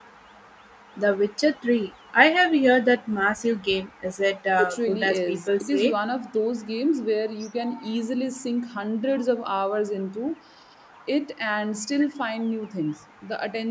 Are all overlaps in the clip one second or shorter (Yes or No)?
No